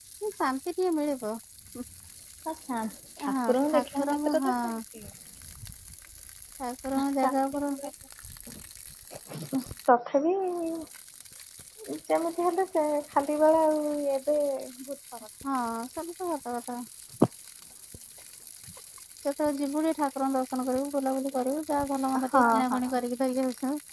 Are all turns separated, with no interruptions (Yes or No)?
No